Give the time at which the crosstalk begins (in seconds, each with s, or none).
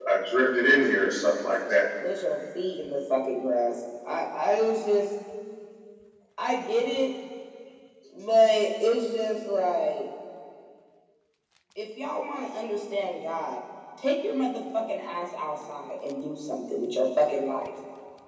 none